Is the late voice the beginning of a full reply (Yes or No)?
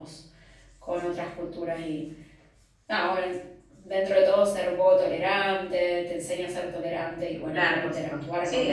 Yes